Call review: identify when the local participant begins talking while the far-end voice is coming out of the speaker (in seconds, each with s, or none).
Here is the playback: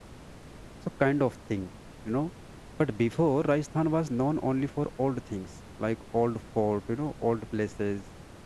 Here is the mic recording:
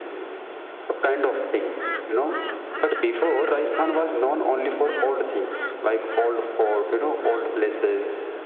none